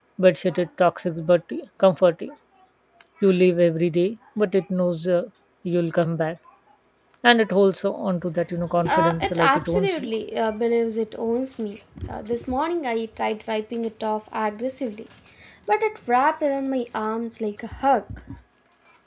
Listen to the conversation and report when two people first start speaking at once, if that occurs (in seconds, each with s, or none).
8.9 s